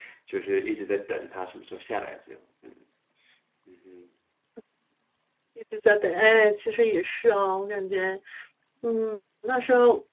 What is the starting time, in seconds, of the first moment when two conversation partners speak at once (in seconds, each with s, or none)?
none